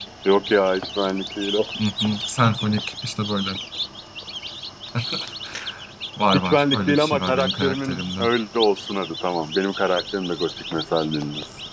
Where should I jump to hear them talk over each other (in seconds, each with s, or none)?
6.3 s